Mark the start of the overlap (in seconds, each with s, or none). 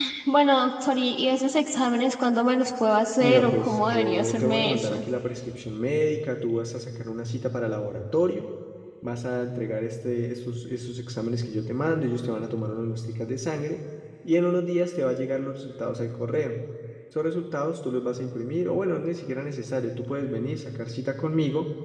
3.2 s